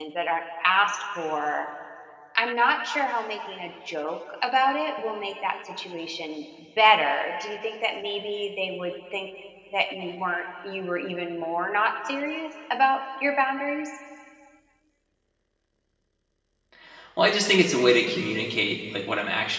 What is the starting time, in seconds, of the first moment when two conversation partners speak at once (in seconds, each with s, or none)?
none